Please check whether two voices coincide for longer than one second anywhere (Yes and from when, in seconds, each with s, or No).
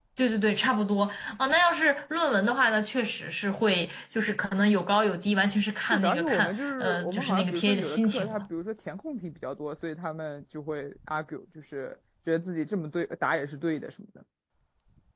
Yes, from 5.8 s